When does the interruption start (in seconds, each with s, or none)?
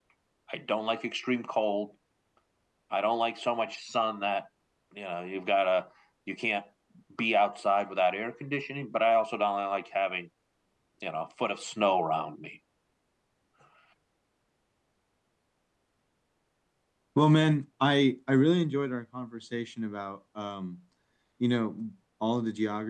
none